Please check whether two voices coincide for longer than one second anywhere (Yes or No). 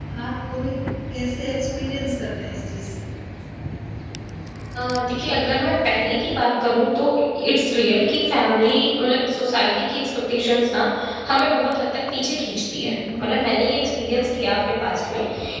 No